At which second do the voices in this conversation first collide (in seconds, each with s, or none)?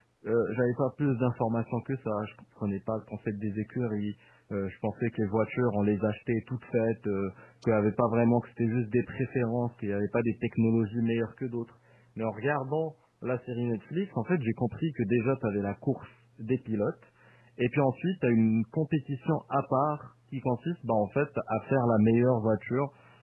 none